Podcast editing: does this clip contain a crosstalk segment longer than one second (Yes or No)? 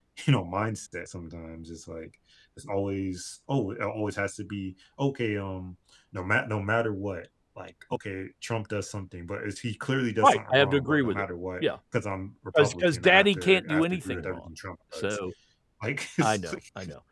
Yes